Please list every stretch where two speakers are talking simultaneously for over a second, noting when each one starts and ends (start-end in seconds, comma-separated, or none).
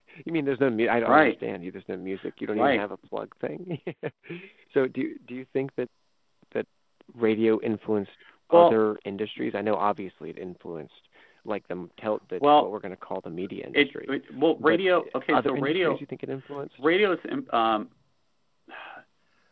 14.6-16.0